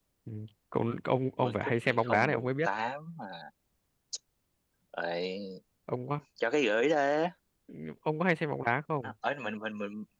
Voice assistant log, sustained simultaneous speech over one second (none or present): present